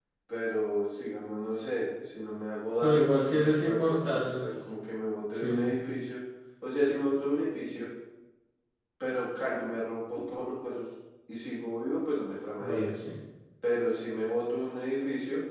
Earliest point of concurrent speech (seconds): 2.8 s

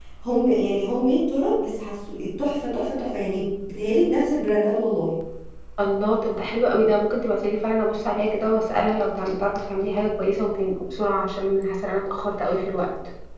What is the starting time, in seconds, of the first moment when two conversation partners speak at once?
none

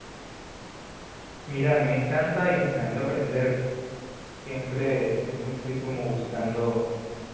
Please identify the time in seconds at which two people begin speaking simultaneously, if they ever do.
none

